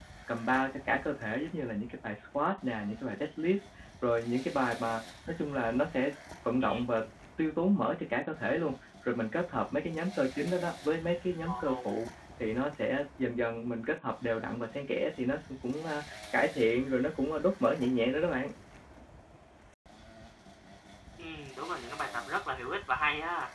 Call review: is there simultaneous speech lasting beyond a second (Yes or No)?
No